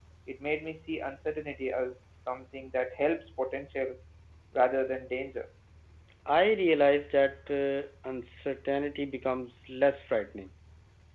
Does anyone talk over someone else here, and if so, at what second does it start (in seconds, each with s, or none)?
none